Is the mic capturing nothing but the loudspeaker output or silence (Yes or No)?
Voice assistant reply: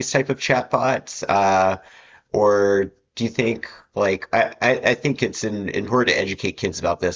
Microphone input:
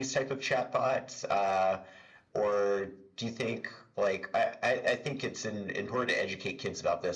Yes